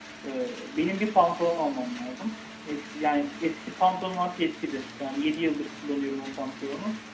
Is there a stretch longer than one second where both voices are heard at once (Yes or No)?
No